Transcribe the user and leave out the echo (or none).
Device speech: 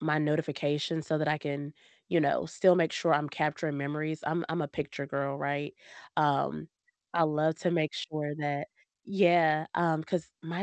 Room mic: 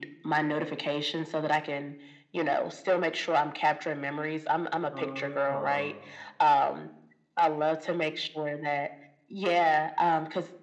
Oh, no.